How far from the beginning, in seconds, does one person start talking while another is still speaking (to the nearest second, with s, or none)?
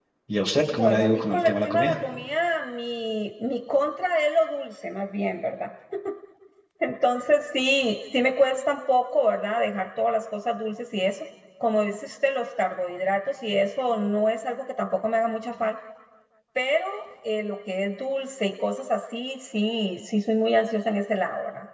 1 s